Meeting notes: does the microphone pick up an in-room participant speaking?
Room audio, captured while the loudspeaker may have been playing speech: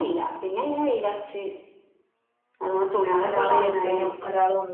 Yes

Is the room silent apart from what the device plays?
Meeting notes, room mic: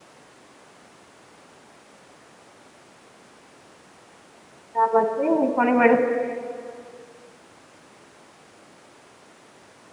No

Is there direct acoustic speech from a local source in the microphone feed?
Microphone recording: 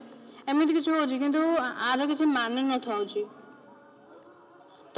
No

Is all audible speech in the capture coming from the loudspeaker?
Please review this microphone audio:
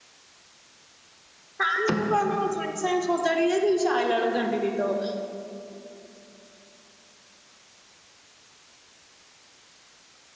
No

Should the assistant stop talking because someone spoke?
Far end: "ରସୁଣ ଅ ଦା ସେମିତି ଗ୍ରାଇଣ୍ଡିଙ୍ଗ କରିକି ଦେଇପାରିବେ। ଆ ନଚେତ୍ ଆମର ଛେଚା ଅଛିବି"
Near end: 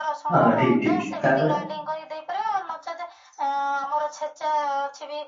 Yes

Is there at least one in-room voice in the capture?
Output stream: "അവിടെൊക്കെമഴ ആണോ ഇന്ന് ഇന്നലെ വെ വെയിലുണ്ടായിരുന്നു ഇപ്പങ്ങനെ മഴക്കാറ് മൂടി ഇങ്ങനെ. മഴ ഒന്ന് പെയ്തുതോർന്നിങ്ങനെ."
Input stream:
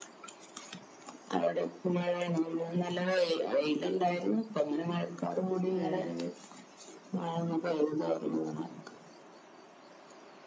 Yes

